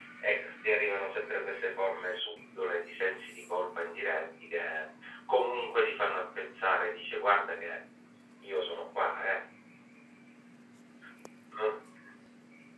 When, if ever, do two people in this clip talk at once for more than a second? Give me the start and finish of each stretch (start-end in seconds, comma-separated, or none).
none